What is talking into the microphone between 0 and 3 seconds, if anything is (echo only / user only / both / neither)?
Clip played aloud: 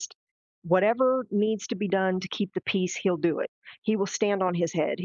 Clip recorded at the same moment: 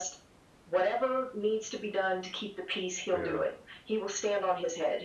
echo only